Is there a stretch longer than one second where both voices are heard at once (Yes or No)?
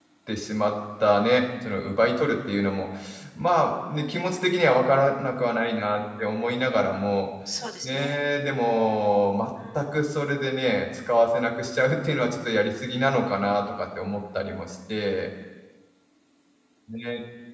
No